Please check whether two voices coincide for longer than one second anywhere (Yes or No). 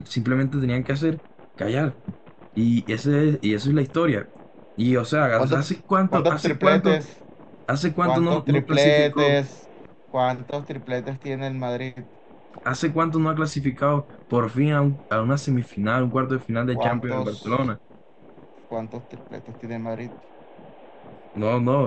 Yes